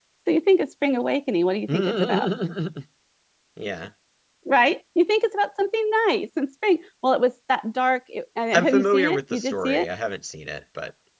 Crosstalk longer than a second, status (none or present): present